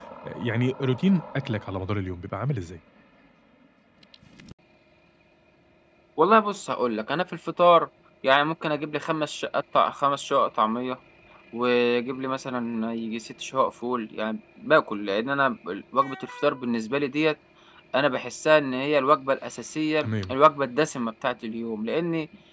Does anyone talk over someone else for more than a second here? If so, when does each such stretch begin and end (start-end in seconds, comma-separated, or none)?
none